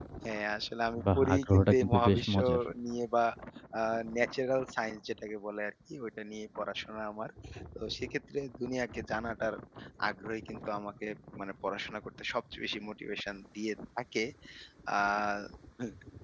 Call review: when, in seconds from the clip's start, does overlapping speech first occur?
1 s

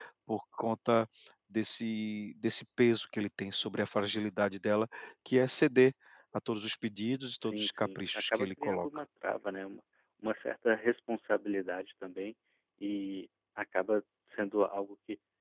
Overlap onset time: 7 s

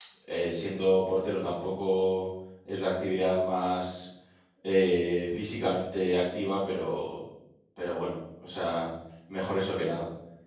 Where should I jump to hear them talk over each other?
none

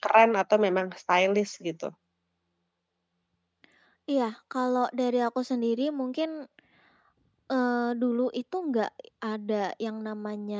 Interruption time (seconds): none

